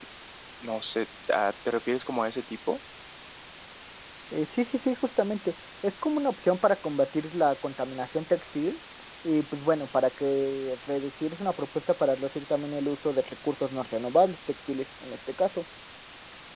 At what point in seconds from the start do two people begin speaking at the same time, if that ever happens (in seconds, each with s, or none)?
none